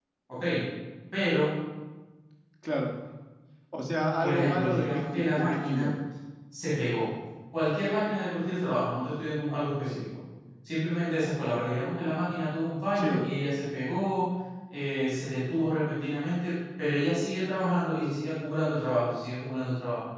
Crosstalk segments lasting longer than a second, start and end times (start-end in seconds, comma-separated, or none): 4.2-5.9